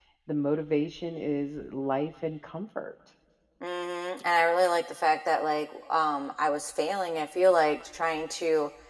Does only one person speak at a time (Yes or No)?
Yes